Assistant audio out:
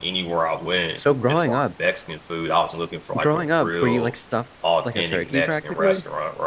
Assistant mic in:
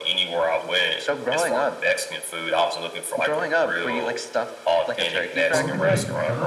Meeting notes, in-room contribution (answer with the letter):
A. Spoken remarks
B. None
A